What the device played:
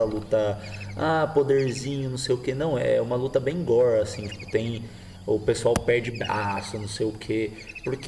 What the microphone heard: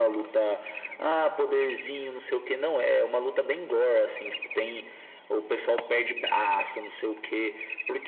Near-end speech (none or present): none